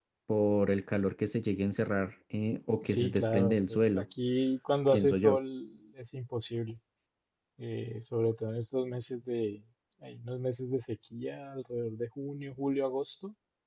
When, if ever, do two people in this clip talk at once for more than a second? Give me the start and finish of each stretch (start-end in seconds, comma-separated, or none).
2.8-4.0